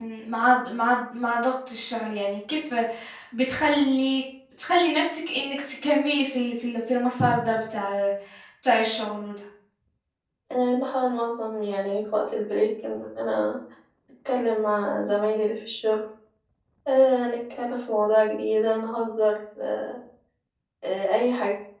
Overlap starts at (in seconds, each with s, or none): none